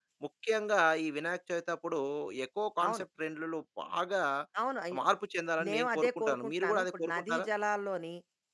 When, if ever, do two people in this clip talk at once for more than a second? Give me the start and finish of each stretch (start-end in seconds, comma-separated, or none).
5.7-7.5